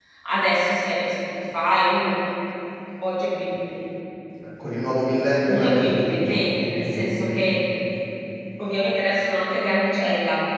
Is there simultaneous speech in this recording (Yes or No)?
Yes